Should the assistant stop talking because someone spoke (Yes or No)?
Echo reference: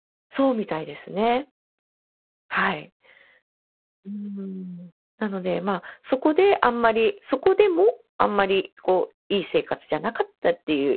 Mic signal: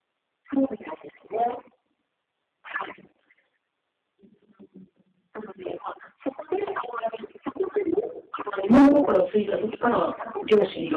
Yes